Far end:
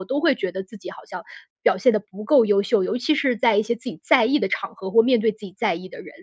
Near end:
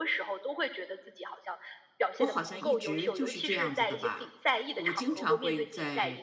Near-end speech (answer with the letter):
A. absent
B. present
B